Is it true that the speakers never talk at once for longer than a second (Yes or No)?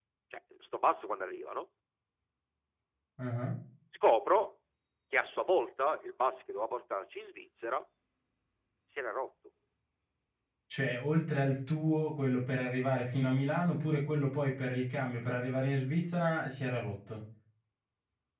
Yes